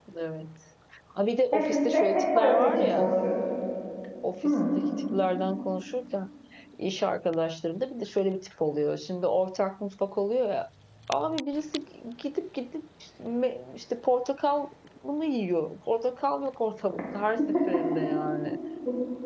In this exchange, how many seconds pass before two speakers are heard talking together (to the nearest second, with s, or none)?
2 s